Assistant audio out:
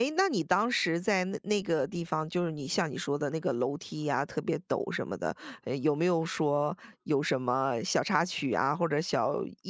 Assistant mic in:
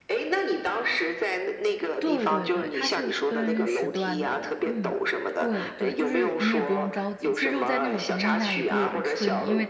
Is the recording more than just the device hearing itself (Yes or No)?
Yes